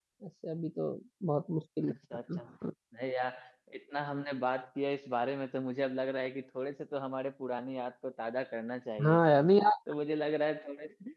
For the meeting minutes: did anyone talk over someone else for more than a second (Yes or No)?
No